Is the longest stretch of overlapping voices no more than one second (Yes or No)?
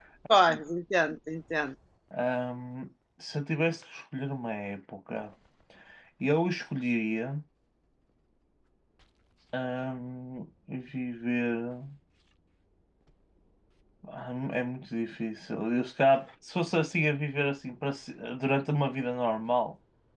Yes